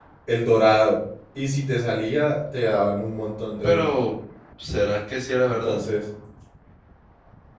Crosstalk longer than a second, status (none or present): none